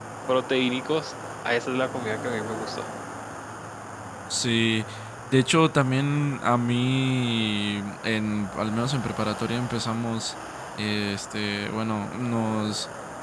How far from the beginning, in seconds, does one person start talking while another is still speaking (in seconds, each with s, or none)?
none